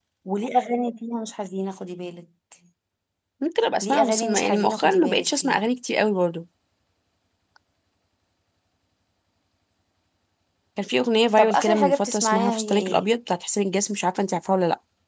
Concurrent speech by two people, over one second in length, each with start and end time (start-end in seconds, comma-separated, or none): 3.8-5.6, 11.4-13.0